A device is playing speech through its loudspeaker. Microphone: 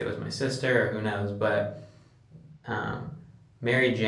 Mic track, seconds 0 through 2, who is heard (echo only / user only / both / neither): user only